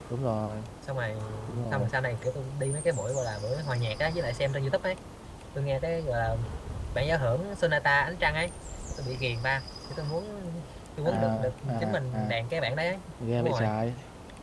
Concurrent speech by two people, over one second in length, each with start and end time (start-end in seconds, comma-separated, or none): 11.2-12.4